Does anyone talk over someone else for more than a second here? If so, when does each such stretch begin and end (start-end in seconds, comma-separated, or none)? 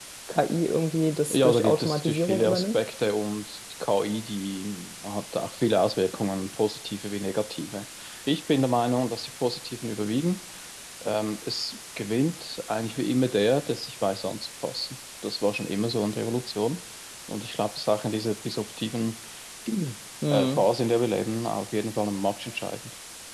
1.3-2.8